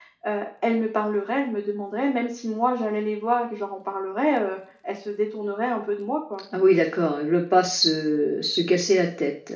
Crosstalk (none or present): none